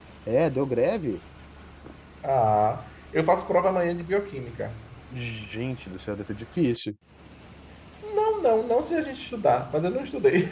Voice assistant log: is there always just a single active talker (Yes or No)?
Yes